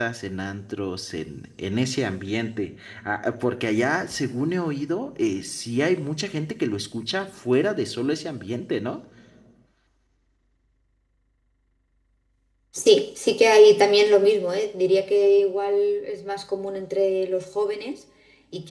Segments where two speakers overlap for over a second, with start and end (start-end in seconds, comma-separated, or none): none